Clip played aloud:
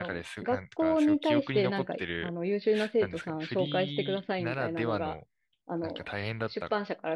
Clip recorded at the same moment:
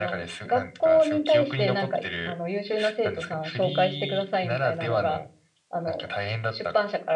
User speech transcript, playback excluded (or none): はいはい。